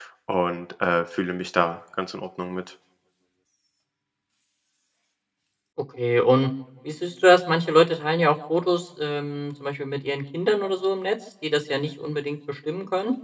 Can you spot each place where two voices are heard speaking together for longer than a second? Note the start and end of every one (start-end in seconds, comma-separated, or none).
none